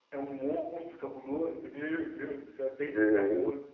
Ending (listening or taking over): listening